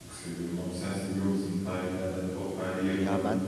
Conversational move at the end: taking over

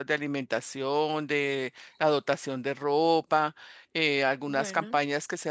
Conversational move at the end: listening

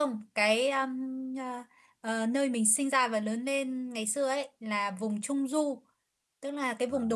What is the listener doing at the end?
listening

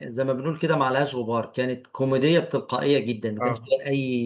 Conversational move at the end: listening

